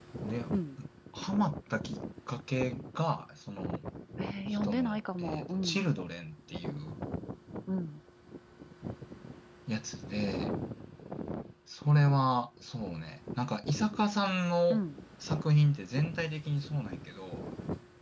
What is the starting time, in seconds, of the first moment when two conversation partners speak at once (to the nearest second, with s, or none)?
4 s